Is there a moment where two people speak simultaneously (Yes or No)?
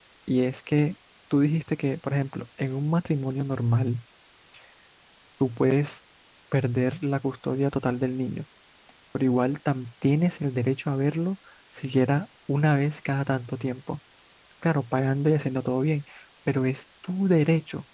No